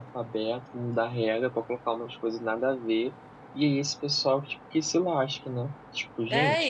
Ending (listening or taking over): taking over